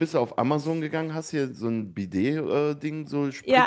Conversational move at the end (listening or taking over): listening